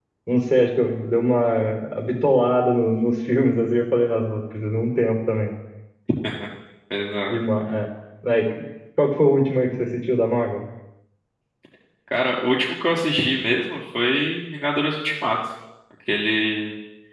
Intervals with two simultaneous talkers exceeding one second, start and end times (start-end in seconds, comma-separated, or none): none